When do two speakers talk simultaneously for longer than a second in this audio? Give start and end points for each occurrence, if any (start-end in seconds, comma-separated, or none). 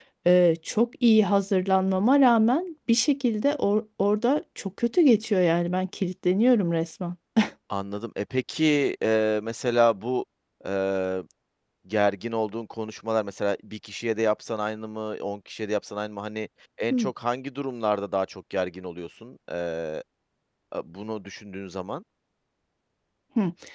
none